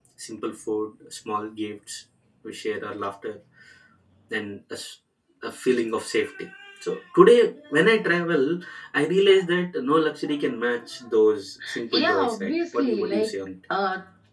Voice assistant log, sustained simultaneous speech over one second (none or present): present